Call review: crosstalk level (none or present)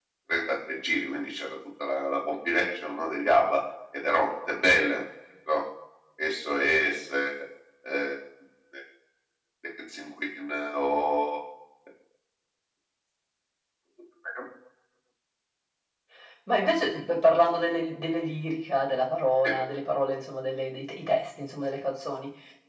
none